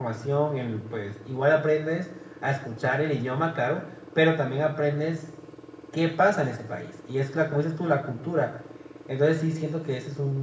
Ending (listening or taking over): listening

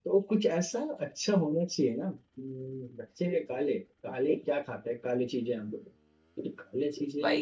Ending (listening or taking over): taking over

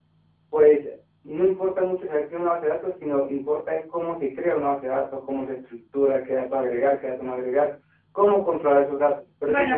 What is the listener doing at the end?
taking over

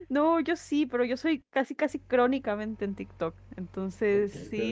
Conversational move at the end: taking over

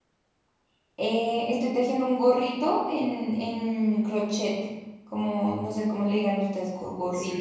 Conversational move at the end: taking over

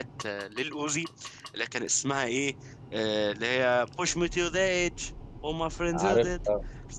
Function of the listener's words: listening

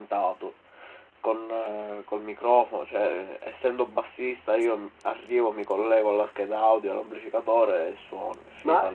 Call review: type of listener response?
taking over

